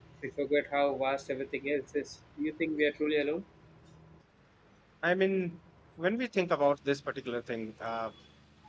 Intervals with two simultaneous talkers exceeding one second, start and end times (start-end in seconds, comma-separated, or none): none